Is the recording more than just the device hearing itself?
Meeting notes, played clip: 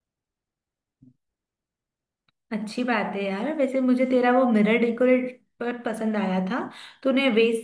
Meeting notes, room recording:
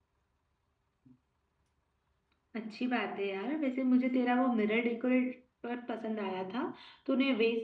No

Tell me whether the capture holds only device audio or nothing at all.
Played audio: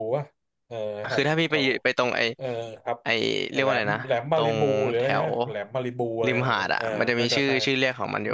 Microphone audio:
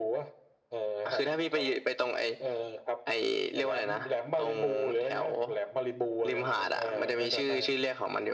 No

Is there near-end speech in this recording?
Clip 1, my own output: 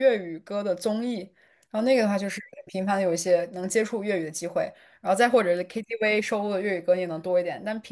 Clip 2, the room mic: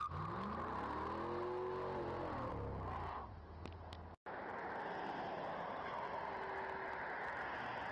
No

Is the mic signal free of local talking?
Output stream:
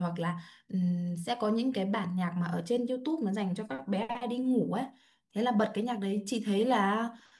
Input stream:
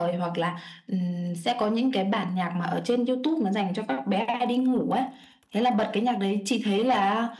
Yes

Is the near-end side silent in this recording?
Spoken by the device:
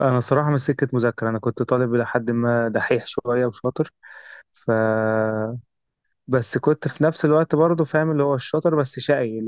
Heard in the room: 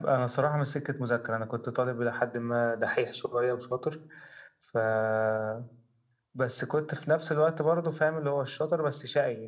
Yes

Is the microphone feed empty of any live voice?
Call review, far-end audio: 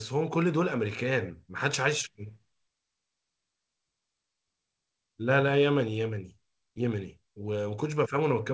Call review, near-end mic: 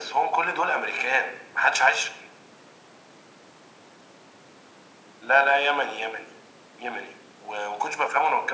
Yes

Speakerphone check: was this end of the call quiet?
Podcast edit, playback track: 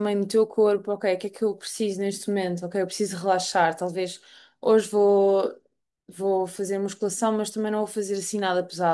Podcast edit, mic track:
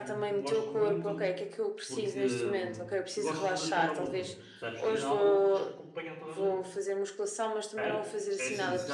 No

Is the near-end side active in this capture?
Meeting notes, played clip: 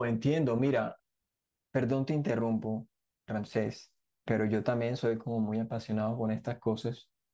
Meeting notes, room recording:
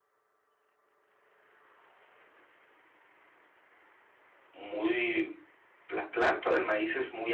Yes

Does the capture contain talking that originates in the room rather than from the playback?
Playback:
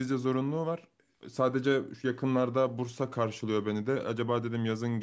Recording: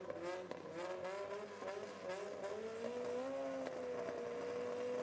No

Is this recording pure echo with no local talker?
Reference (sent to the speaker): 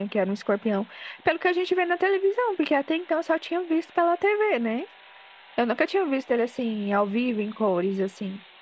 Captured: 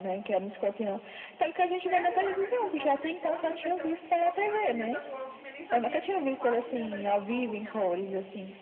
No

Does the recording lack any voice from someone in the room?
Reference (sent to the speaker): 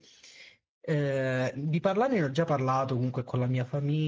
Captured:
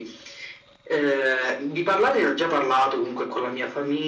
Yes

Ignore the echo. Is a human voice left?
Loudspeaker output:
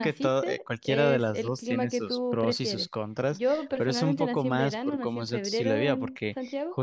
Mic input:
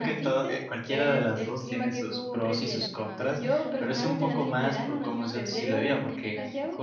Yes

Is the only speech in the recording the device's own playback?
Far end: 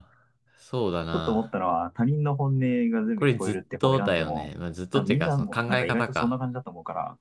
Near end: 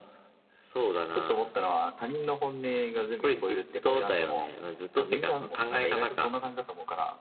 Yes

